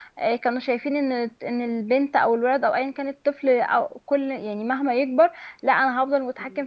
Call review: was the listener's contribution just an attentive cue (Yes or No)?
Yes